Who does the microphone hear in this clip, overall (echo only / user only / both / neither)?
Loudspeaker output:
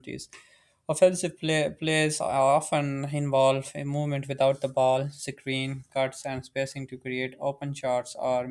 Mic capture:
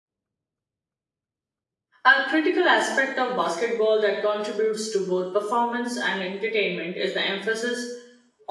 user only